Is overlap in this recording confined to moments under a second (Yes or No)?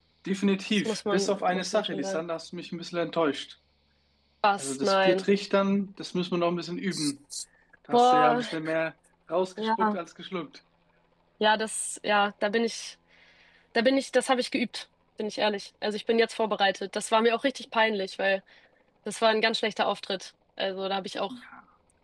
No